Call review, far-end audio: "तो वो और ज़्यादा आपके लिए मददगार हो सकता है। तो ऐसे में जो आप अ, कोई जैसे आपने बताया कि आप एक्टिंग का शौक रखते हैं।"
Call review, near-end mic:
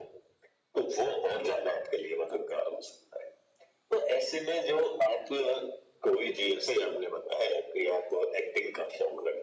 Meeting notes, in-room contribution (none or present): none